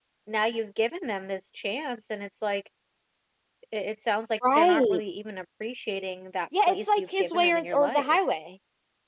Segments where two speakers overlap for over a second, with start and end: 6.7-8.2

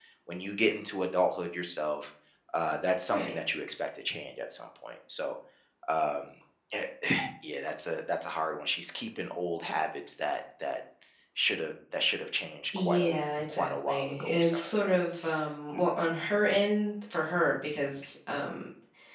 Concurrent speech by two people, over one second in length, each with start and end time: 13.5-15.0

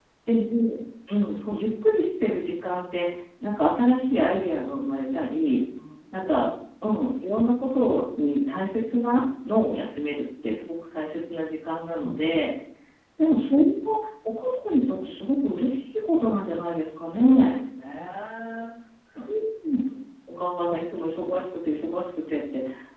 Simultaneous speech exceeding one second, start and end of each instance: none

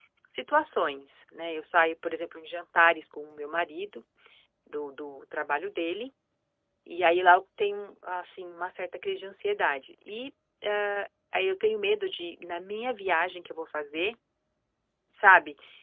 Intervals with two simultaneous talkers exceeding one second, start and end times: none

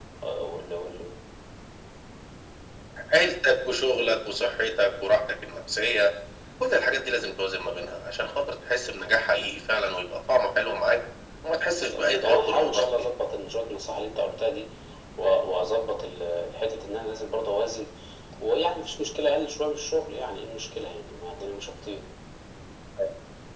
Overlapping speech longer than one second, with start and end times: 11.8-13.1

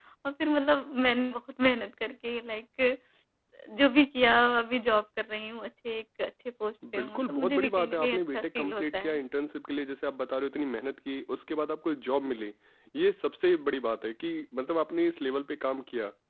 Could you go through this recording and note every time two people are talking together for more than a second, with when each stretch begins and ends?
6.9-9.2

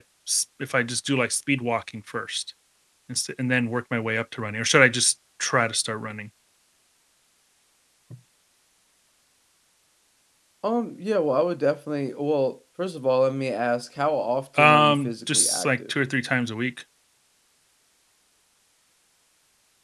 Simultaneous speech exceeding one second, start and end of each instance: 14.6-15.9

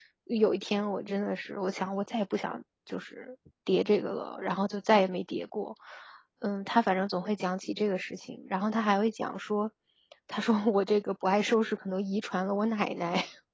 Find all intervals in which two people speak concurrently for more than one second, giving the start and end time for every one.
none

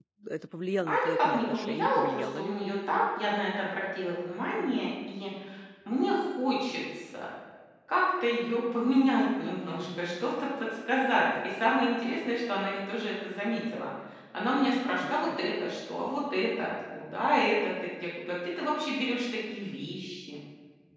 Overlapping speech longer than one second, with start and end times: 0.8-2.6

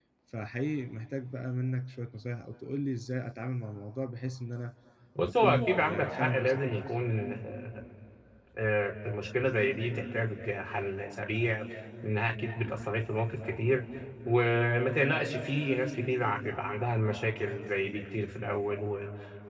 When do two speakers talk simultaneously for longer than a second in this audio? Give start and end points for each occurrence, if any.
5.2-6.9

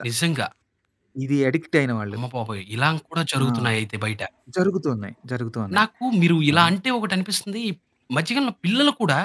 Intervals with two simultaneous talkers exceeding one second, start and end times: none

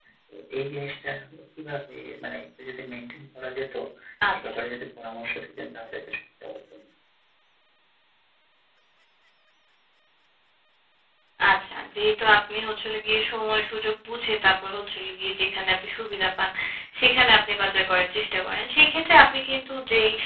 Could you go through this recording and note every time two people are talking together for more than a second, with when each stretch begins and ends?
none

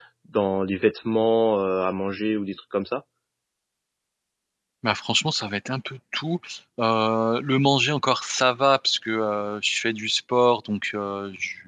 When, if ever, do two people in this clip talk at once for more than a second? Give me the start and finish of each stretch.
none

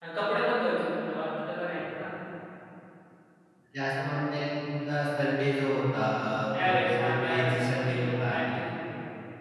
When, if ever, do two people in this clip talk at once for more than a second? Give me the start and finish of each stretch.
6.6-8.6

